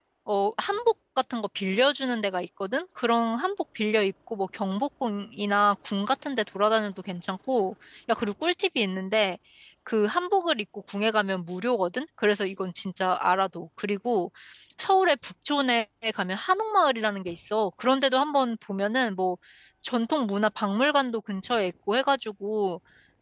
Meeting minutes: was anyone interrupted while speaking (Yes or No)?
No